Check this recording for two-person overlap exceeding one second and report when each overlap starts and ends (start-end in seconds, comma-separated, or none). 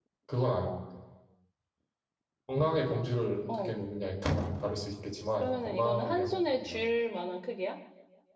5.4-6.8